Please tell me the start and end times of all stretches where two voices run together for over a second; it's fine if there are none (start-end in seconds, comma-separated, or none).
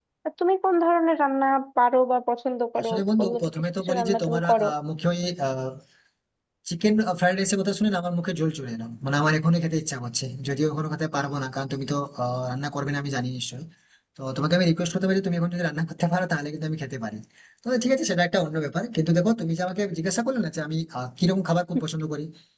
2.8-4.7